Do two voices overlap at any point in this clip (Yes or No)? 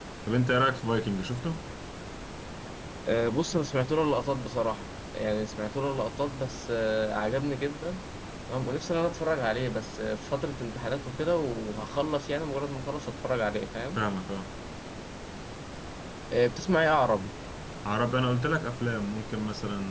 No